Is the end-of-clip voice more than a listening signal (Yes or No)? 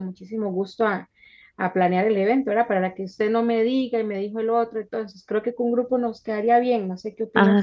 Yes